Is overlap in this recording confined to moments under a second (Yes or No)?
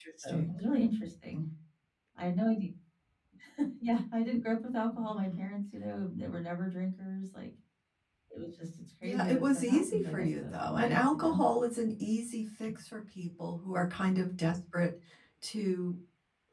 No